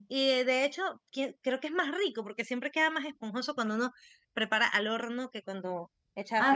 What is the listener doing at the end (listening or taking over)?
taking over